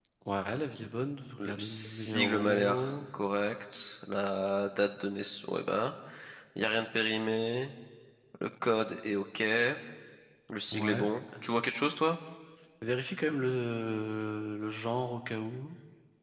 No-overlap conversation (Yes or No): No